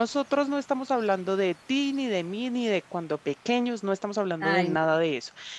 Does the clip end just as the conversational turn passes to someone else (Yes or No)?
No